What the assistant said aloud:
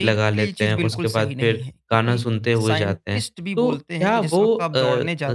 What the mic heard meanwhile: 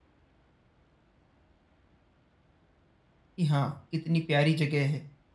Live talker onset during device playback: 3.4 s

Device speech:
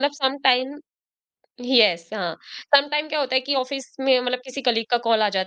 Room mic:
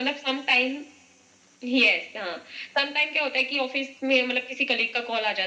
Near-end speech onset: none

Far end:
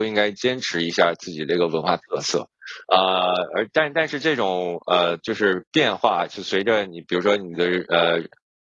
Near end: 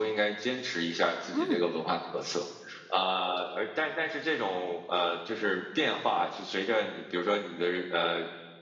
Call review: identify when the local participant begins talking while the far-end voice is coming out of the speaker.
1.3 s

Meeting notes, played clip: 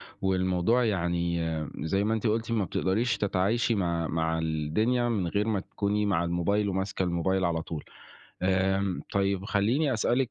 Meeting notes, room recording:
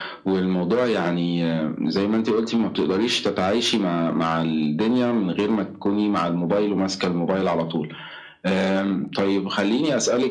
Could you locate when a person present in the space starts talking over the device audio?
none

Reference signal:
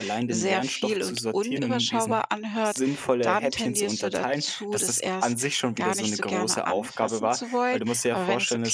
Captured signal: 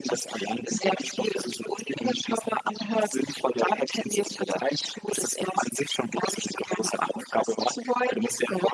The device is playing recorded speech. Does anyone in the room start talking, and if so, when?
none

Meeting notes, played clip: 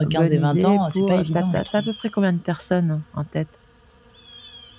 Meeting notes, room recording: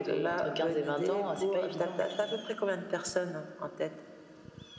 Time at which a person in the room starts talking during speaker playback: none

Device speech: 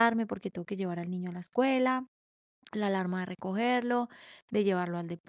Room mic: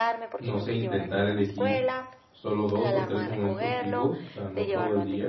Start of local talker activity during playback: 0.4 s

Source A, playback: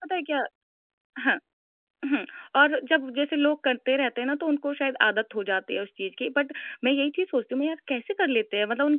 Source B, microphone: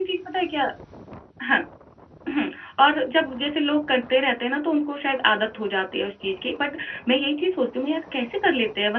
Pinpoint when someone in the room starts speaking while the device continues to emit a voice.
none

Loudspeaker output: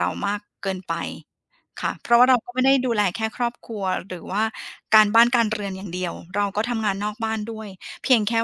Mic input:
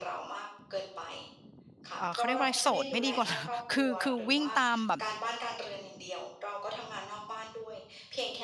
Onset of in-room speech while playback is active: 2.0 s

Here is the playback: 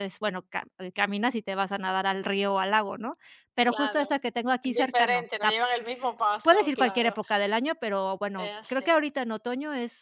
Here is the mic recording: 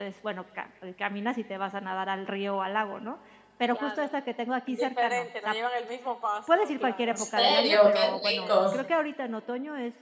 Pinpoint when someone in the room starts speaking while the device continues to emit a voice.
7.1 s

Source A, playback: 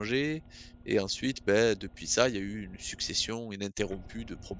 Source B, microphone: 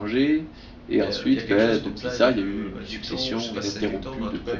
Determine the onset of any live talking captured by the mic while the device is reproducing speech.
1.0 s

